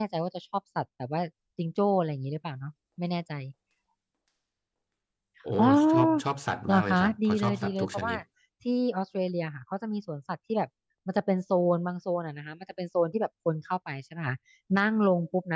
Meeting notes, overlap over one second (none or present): present